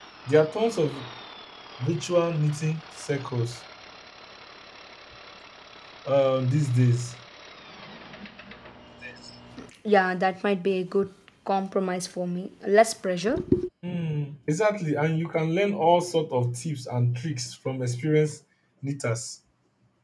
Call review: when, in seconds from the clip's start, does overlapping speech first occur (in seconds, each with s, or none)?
none